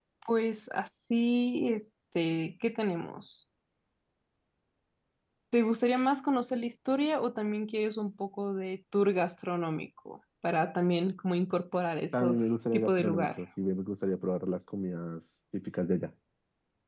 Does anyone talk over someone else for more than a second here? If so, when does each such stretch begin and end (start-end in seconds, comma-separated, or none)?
12.1-13.4